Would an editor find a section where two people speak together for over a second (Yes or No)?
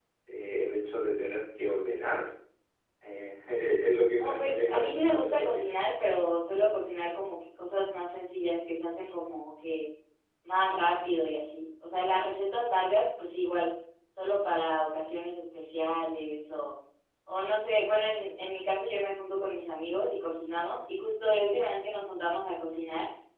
Yes